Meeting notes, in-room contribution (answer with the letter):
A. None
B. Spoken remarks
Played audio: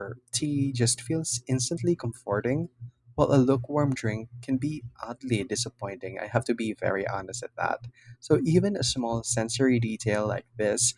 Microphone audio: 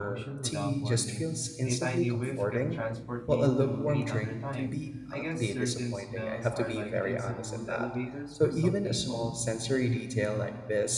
B